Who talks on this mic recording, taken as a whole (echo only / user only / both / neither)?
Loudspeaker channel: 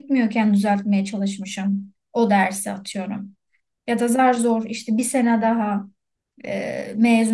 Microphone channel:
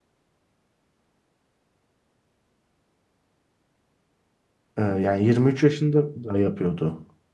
user only